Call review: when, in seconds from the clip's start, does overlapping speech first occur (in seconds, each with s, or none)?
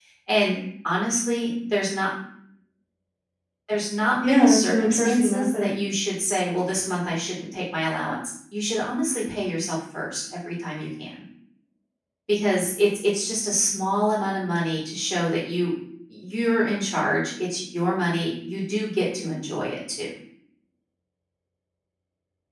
4.2 s